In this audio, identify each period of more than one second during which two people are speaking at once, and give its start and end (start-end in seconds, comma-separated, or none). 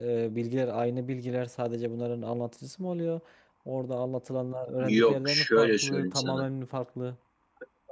5.0-6.5